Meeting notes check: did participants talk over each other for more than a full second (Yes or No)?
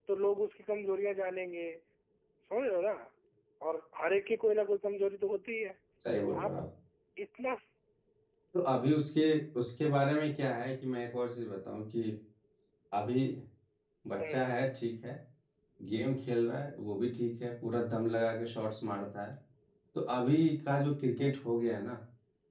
No